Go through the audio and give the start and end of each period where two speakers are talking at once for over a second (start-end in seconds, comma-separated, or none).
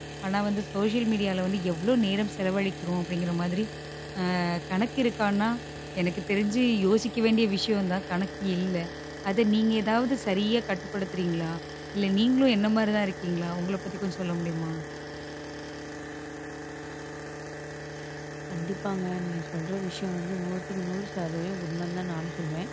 none